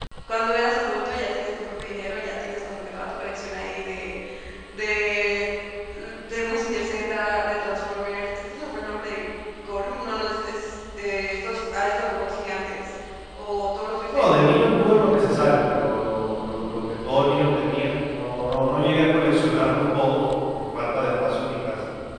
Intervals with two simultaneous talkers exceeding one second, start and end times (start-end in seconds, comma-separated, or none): none